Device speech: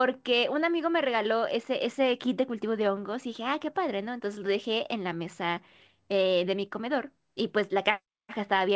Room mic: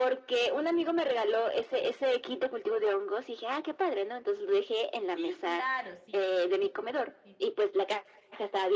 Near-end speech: present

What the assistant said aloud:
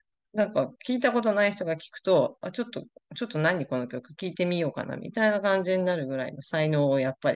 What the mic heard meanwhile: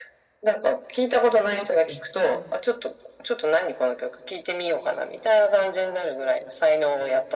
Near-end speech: present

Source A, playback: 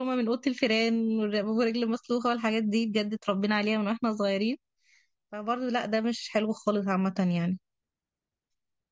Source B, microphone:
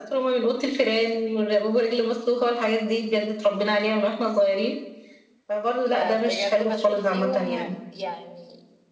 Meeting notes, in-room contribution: present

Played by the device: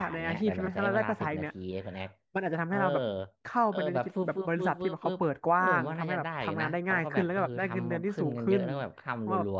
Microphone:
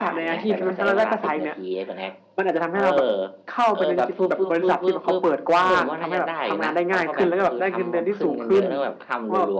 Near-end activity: none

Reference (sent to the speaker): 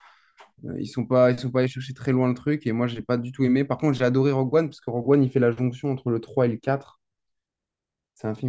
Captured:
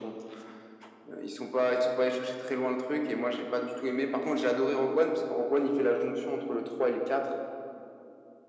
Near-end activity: none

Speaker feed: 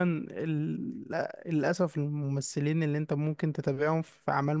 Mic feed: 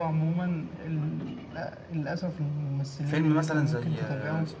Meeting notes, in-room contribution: present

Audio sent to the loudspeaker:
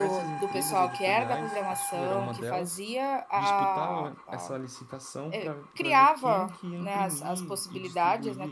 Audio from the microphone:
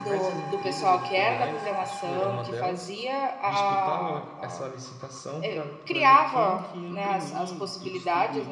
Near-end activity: none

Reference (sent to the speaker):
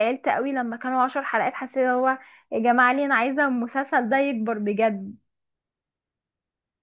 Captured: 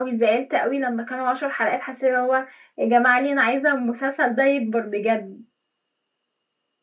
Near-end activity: none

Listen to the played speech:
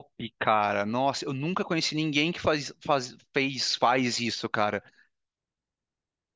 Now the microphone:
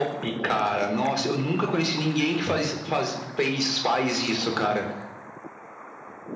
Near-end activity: none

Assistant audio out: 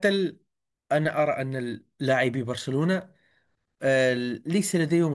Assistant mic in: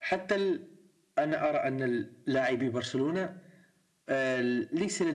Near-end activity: none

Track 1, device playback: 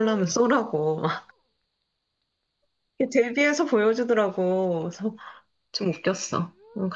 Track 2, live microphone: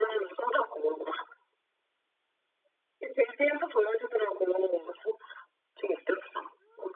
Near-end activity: none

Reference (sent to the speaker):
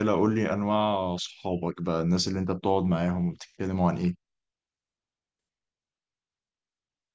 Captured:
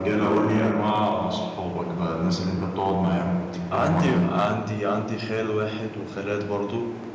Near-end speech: present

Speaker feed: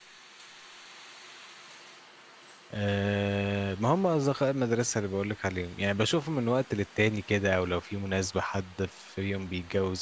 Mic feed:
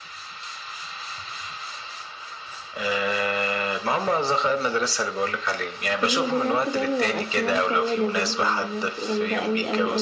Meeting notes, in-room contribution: present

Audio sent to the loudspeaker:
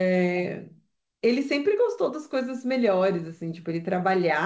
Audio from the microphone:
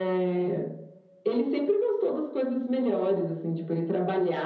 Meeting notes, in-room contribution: none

